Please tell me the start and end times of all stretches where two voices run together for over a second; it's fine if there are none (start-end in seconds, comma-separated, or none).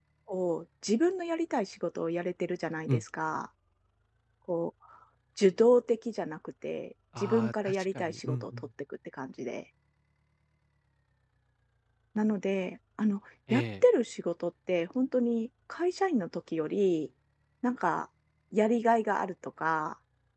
7.2-8.7